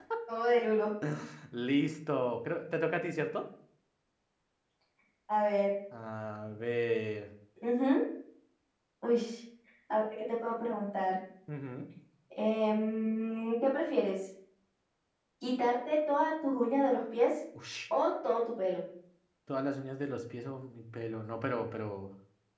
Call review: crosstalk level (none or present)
none